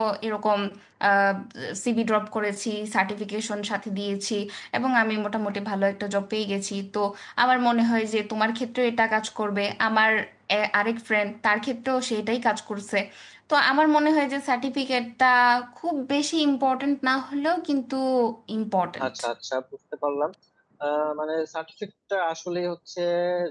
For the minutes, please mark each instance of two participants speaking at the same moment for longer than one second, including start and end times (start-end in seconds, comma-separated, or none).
none